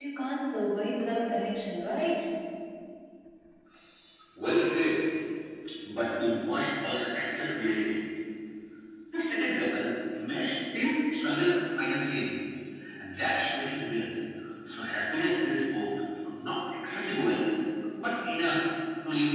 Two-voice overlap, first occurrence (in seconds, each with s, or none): none